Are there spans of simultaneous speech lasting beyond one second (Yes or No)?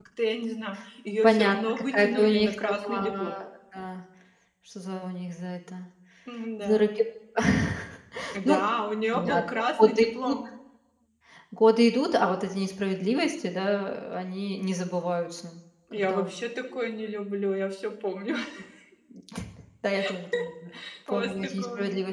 Yes